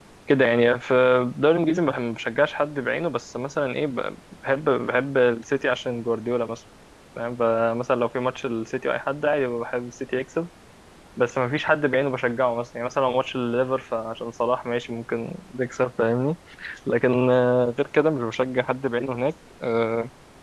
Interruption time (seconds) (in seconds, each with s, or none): none